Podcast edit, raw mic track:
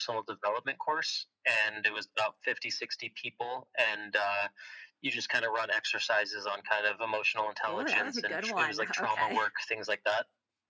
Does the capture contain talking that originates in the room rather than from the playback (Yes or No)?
Yes